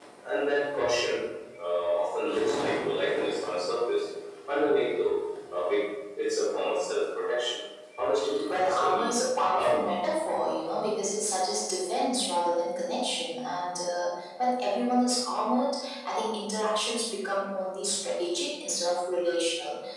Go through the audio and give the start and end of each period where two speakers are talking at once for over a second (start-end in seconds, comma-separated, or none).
8.5-9.9